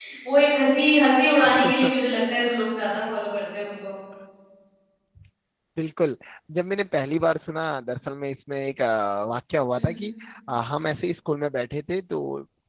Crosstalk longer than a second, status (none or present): none